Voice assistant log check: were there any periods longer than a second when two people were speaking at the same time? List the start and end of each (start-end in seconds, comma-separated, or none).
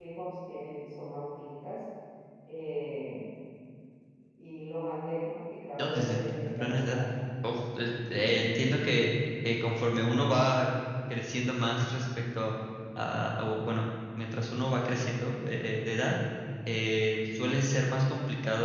5.8-7.0